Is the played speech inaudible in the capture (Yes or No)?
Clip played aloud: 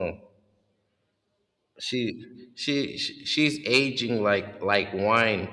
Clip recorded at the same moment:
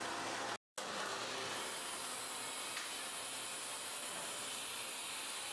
Yes